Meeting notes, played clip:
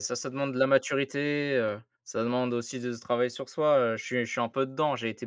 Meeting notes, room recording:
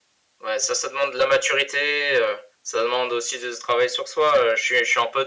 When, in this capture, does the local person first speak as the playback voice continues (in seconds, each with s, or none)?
none